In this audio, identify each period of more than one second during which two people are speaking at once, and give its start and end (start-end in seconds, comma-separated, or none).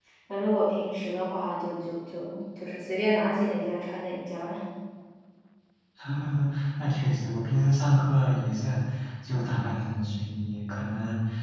none